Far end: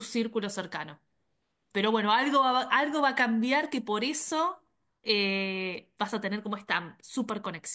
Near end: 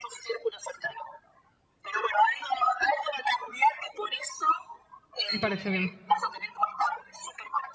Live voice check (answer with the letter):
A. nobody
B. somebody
B